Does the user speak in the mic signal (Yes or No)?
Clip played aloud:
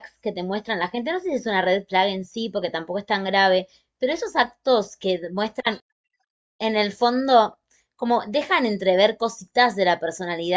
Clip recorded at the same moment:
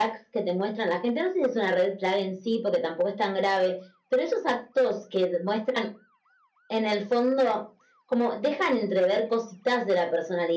No